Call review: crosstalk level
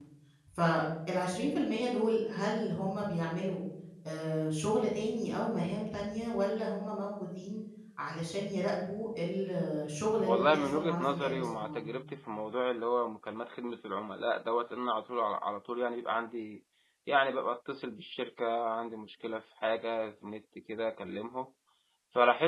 present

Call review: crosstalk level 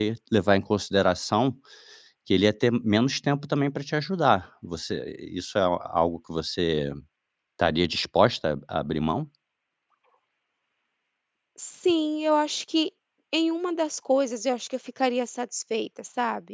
none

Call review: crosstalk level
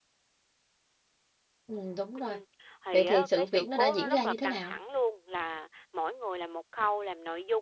present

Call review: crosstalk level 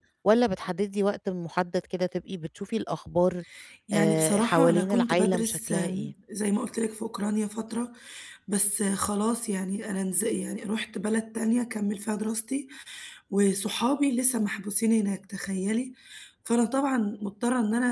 present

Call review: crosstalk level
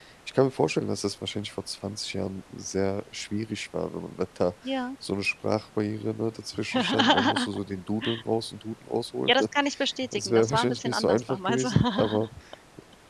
present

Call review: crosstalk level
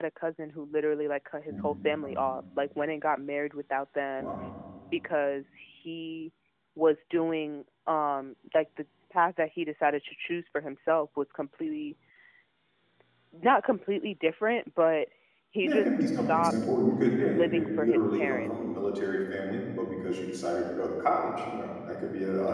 present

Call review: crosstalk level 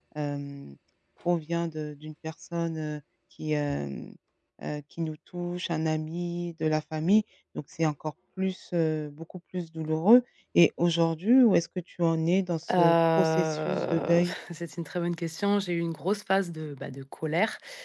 present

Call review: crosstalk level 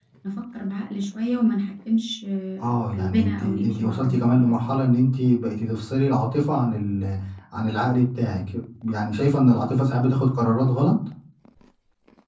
present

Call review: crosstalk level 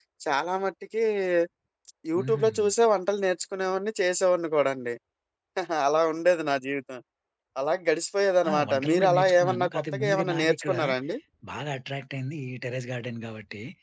present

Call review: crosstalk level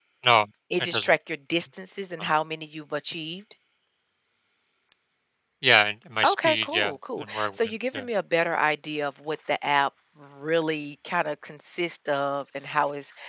present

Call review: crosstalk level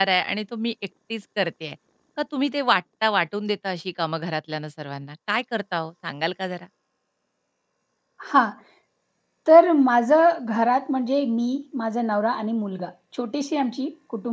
none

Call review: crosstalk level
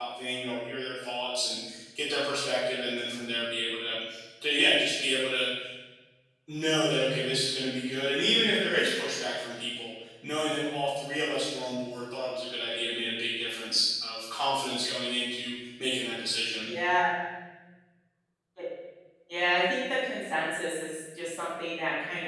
none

